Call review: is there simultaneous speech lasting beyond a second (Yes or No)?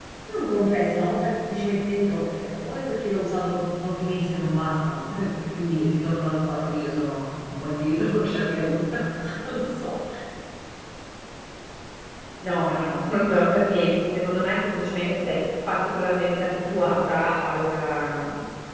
No